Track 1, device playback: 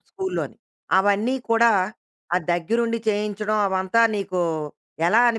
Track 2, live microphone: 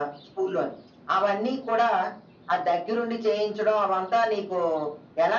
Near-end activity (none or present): none